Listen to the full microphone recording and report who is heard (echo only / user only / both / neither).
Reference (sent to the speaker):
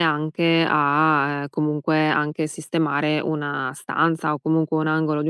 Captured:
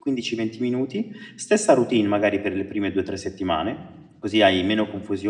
user only